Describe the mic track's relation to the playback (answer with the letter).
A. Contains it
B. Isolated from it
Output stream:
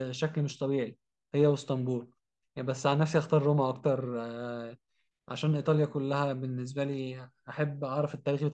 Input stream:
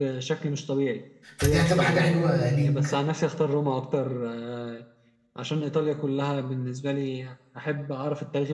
A